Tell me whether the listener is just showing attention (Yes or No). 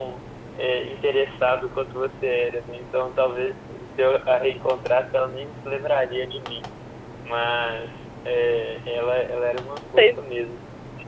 Yes